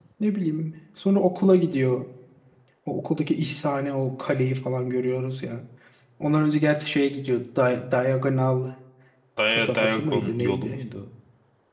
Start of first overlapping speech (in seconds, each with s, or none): 9.5 s